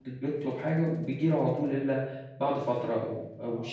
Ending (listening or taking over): taking over